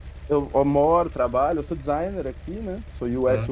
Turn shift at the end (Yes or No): No